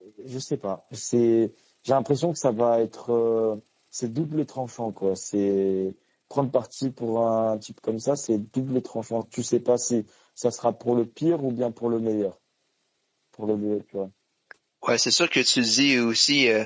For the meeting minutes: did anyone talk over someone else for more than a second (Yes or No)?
No